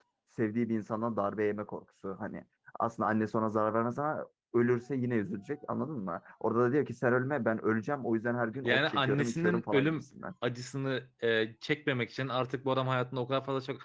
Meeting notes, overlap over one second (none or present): present